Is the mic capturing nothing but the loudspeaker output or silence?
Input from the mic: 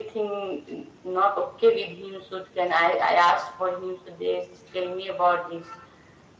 Yes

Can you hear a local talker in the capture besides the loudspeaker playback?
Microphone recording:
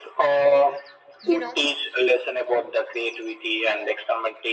Yes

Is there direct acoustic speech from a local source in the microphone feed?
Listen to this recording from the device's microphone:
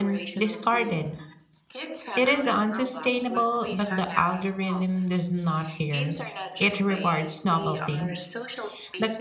Yes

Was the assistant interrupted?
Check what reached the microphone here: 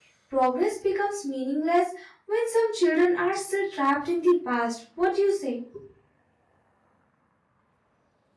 Yes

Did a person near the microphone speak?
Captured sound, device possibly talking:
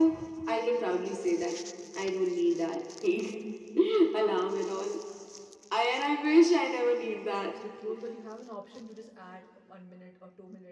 Yes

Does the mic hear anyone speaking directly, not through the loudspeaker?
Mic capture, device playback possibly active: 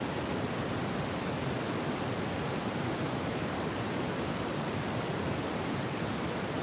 No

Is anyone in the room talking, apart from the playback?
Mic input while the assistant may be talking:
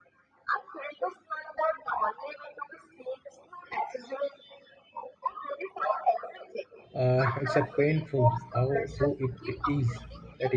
Yes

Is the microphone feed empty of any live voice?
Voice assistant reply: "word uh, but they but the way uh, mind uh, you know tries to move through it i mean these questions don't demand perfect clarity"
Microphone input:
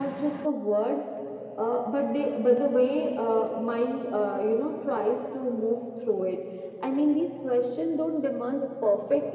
Yes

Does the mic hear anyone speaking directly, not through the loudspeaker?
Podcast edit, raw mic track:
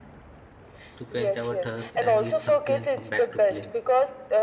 Yes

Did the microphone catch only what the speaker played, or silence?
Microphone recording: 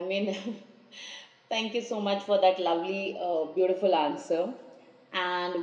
No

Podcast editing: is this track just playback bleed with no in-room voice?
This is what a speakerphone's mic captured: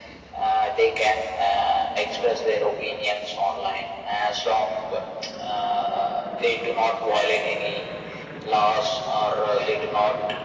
Yes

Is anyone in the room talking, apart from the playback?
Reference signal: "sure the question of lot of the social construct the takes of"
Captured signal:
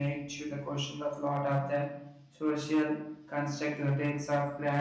No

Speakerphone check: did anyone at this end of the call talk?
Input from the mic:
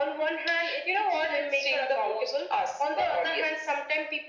No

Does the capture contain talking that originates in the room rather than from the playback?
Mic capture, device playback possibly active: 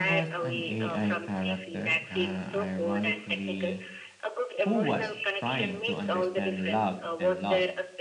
Yes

